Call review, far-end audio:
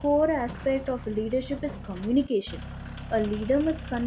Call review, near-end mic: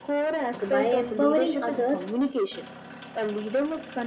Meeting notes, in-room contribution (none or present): present